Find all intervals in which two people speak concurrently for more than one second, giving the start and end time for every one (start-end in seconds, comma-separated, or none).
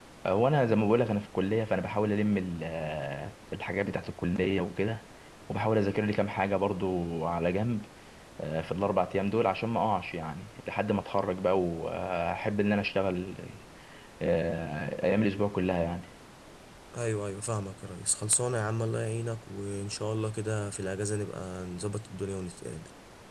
none